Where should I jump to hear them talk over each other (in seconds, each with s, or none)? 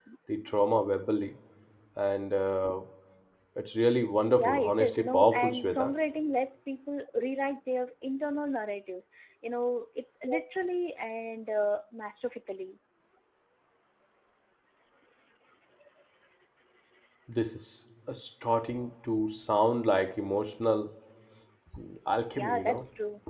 4.4 s